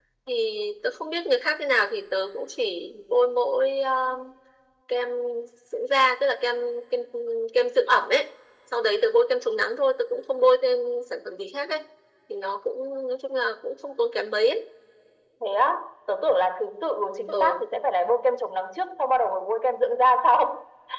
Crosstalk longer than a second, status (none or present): none